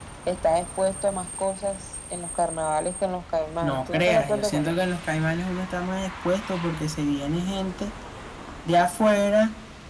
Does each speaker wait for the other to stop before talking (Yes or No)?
No